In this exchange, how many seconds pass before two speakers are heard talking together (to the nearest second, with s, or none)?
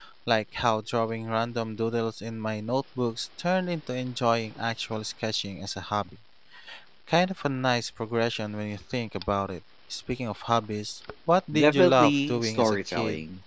12 s